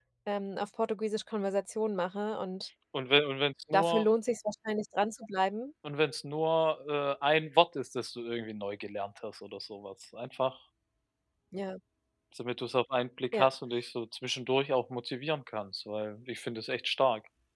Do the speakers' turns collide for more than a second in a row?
No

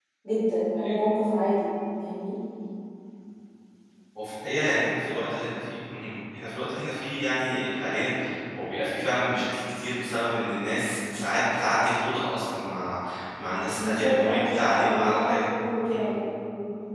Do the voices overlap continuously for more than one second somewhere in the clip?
Yes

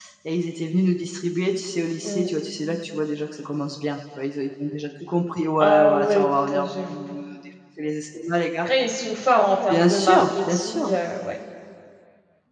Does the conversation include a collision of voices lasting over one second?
Yes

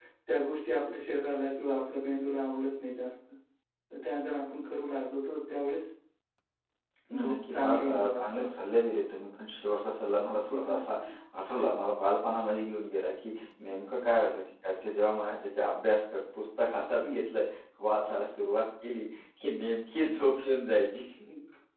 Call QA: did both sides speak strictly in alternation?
No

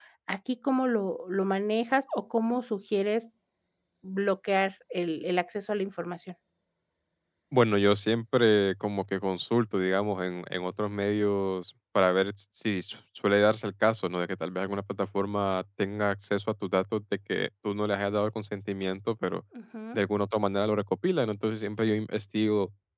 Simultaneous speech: No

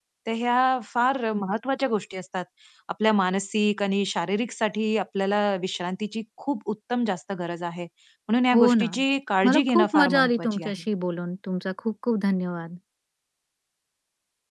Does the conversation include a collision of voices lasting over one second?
Yes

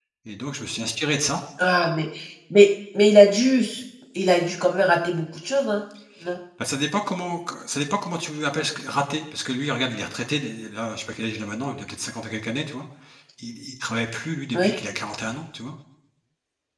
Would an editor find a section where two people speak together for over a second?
No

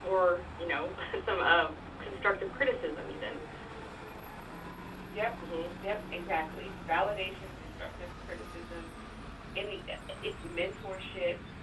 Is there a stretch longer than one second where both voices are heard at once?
No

